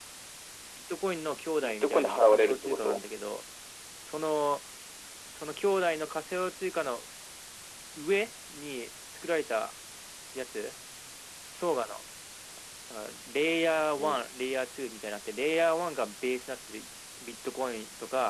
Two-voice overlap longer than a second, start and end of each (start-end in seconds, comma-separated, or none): 1.6-3.0